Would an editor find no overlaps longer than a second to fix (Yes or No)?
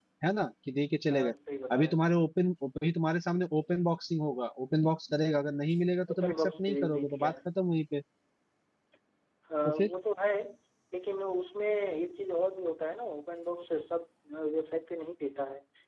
No